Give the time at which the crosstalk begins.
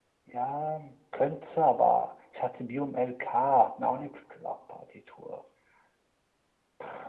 none

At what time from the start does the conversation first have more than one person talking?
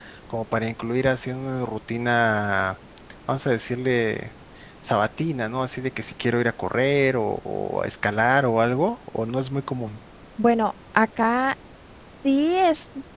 none

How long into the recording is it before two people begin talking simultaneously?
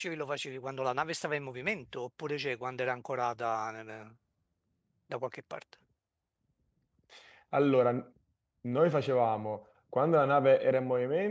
none

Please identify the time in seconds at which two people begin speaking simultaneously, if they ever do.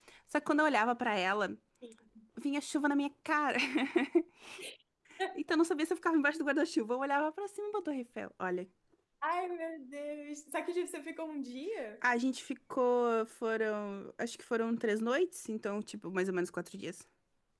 none

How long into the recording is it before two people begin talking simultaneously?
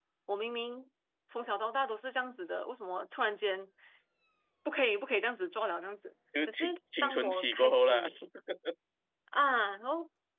6 s

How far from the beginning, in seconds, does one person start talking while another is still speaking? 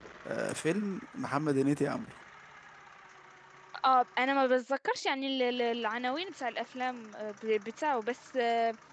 none

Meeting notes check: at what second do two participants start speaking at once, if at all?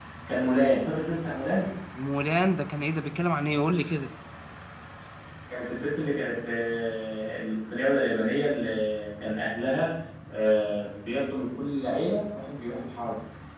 none

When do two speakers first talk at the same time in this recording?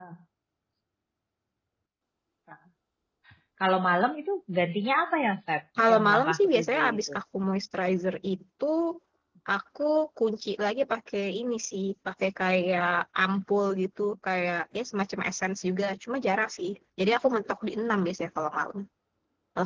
6 s

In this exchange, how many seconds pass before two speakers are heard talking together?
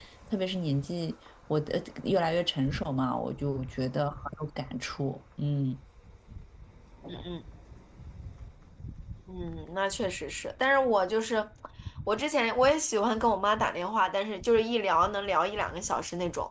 none

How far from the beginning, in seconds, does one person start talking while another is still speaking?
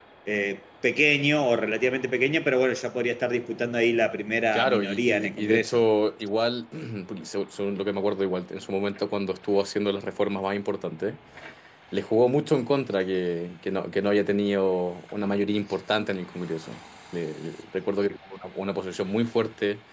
5 s

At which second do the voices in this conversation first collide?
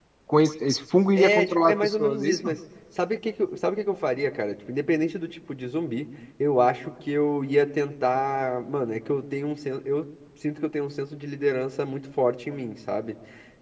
1 s

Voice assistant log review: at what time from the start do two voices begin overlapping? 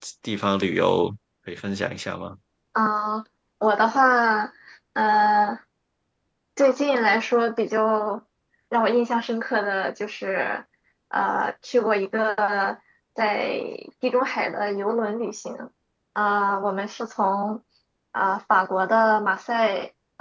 none

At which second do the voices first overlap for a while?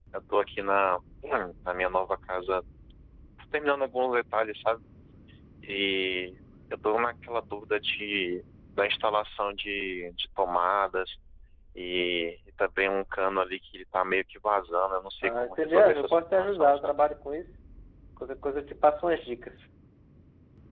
15 s

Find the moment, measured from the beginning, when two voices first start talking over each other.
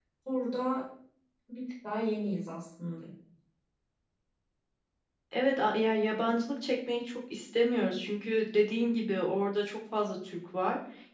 none

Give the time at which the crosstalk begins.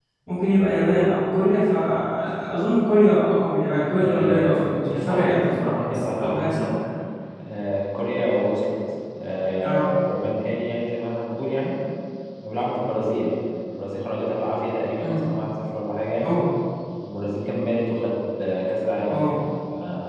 4 s

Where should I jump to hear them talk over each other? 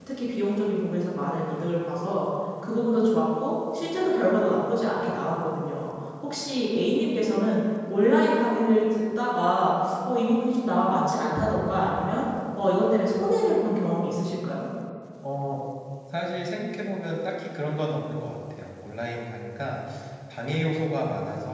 none

